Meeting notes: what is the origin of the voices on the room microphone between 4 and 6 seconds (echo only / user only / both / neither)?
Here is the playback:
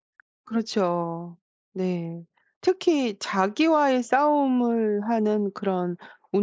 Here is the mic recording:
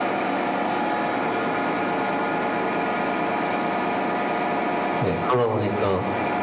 user only